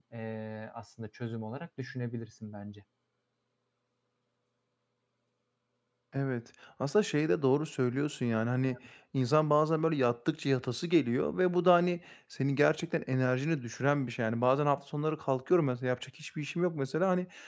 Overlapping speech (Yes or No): No